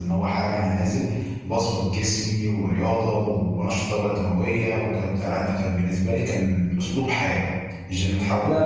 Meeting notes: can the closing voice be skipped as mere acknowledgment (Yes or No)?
Yes